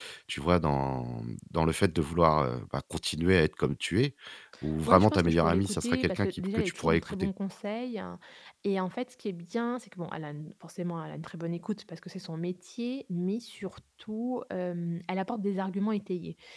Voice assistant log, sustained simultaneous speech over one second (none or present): present